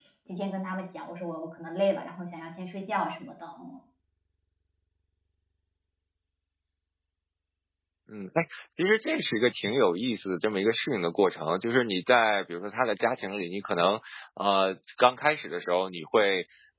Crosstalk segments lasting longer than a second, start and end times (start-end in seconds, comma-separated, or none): none